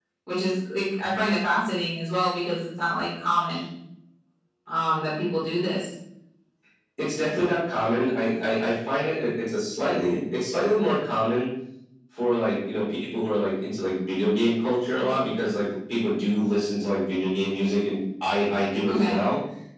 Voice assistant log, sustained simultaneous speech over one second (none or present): none